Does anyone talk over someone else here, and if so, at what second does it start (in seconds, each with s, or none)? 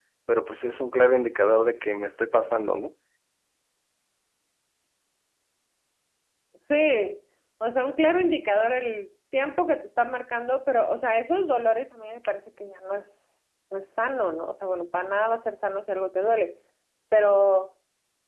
none